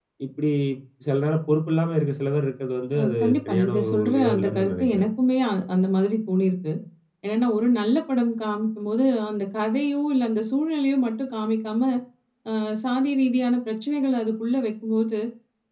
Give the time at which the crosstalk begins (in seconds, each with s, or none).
2.9 s